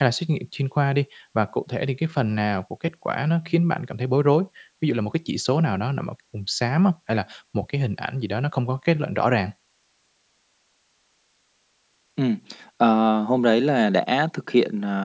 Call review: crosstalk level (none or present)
none